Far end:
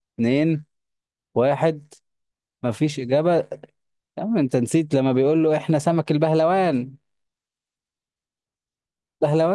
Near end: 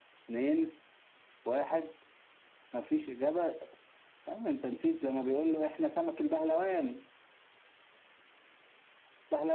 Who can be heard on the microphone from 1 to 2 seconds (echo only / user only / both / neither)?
echo only